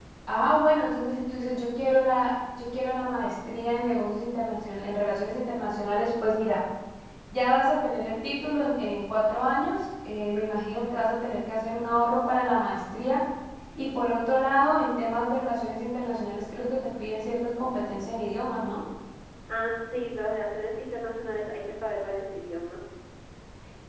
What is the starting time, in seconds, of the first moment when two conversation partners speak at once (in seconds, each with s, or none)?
none